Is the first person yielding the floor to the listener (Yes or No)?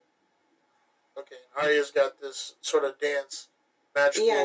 Yes